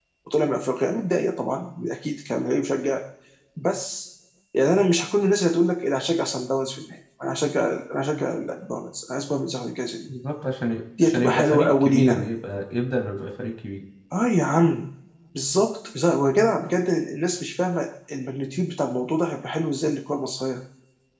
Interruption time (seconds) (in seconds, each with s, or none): 11.0 s